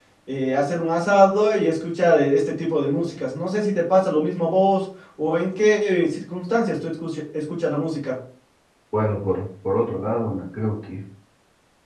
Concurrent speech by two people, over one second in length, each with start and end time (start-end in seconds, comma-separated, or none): none